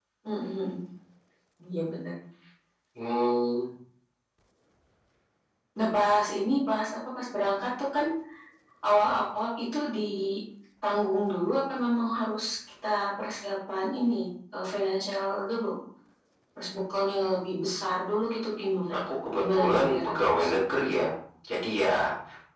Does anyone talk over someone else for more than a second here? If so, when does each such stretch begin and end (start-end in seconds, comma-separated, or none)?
19.4-20.8